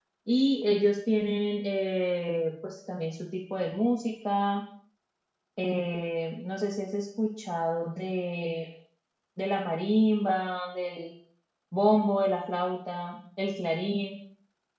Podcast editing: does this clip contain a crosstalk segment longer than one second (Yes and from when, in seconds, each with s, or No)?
No